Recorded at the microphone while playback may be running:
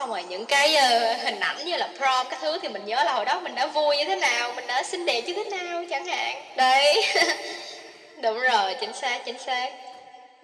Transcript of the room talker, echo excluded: none

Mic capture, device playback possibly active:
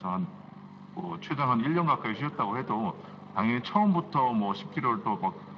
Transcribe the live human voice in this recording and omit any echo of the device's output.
none

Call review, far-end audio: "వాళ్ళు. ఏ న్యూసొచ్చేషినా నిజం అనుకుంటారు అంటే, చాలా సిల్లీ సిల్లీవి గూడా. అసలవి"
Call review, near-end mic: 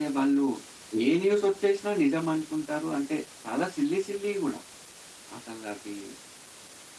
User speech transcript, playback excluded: none

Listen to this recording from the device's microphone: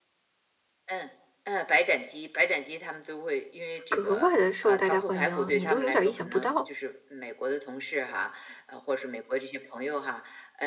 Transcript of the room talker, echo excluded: 格外地受大家欢迎，你都有点儿意想不到？

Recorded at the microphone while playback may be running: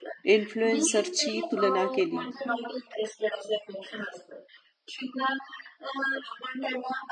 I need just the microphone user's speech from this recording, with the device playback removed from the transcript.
इन्फ्लुएन्सरची तुलना केली

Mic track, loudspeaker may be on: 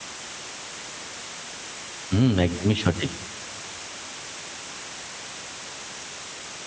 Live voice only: হুম, একদমই সঠিক।

